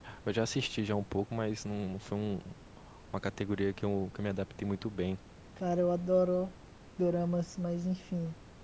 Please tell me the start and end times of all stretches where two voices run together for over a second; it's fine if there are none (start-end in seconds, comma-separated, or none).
none